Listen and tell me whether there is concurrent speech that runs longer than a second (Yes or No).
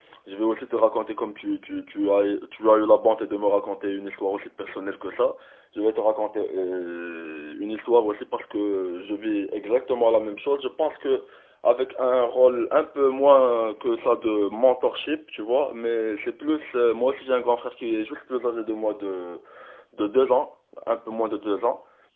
No